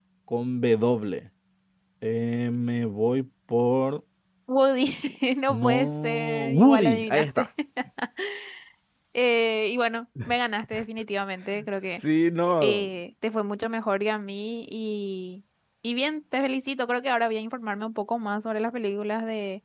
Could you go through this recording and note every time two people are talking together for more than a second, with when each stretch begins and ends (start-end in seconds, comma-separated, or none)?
5.5-7.5